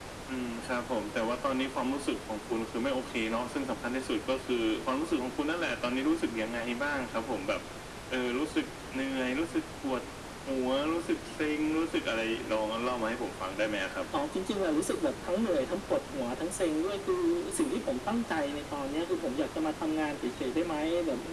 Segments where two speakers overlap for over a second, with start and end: none

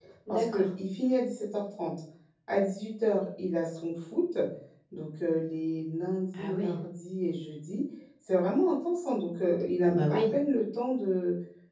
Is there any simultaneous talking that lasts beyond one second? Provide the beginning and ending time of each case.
none

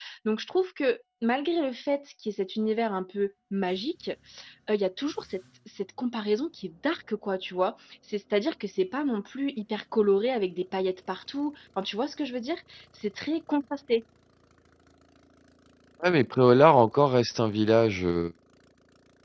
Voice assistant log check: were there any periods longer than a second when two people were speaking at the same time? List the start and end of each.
none

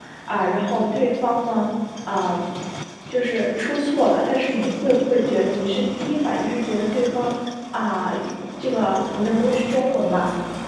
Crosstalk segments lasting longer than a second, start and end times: none

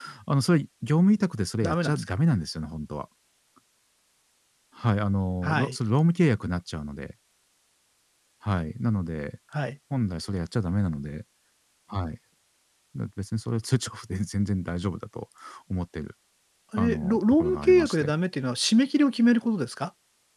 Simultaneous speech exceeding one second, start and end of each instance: 16.8-18.1

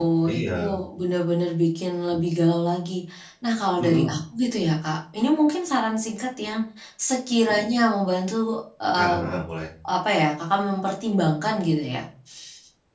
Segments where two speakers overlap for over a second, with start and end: none

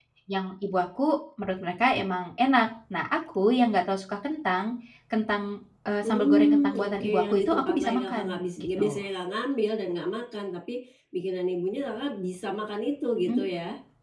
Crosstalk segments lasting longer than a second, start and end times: 6.0-9.0

